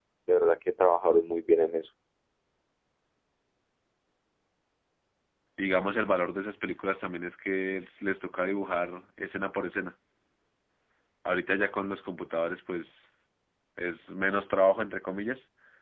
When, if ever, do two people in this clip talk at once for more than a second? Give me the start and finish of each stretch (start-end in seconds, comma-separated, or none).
none